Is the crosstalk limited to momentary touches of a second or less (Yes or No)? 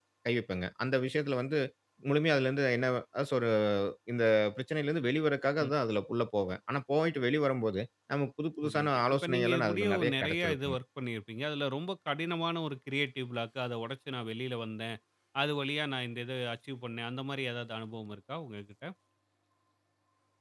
No